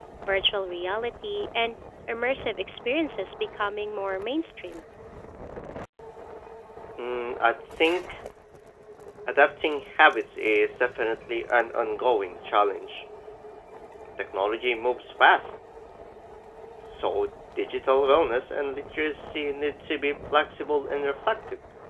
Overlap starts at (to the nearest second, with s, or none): none